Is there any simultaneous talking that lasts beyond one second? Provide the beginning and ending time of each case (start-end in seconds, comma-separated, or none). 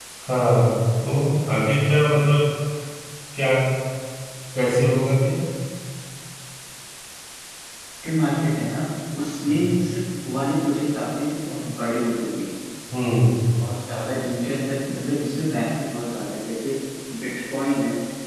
none